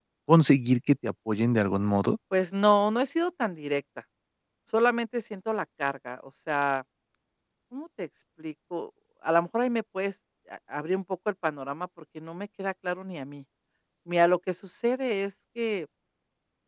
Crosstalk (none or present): none